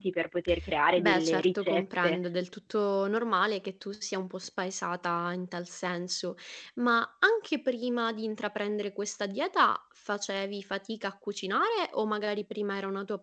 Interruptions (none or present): present